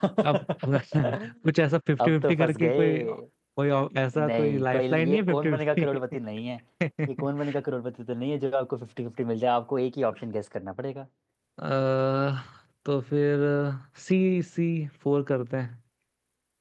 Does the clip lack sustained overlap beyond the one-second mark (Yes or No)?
No